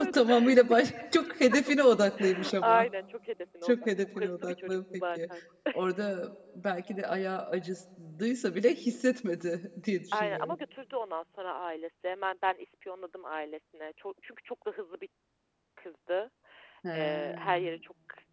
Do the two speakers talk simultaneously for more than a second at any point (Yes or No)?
Yes